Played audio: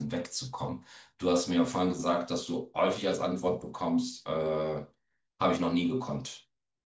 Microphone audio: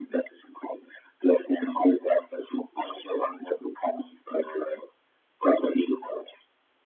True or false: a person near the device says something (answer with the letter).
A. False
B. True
A